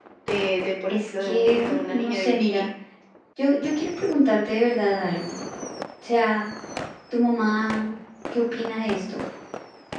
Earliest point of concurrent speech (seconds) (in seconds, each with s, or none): 0.9 s